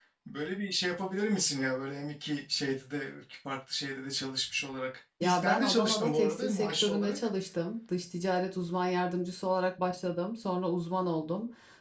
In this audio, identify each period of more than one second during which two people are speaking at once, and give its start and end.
5.2-7.2

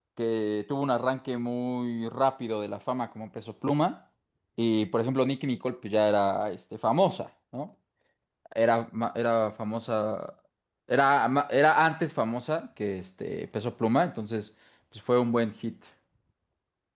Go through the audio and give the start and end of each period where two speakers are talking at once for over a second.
none

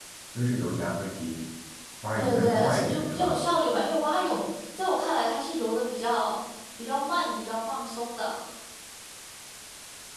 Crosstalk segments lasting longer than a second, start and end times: 2.2-3.4

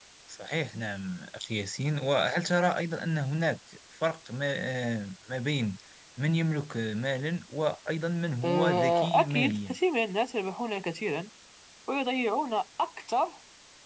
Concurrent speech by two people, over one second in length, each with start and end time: 8.4-9.8

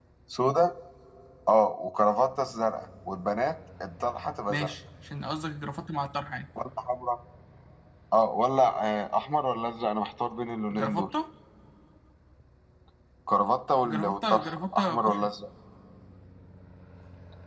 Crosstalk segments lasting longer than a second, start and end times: 13.8-15.3

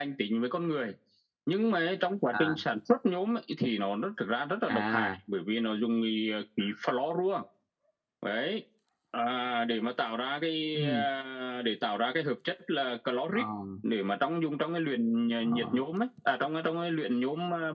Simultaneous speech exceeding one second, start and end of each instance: none

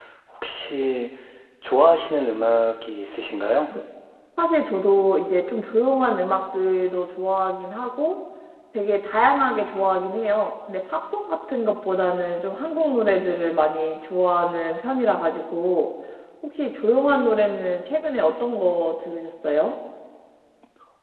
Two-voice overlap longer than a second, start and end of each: none

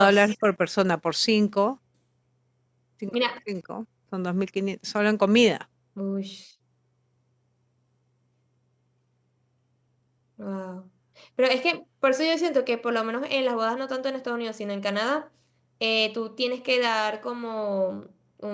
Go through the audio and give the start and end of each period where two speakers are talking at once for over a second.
none

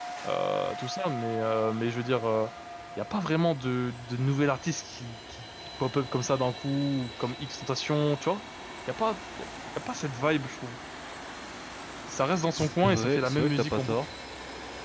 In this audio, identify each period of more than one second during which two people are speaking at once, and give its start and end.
12.6-14.0

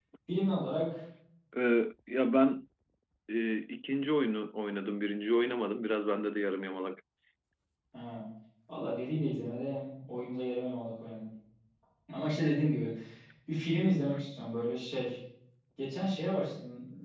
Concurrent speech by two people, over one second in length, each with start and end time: none

